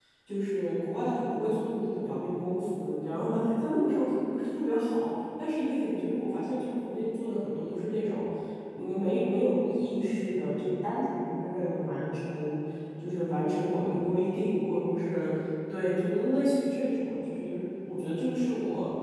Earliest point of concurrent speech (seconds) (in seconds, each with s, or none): none